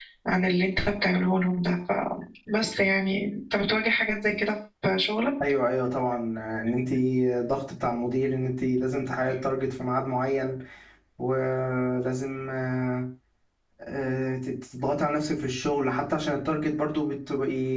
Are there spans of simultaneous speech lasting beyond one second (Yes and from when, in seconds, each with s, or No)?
No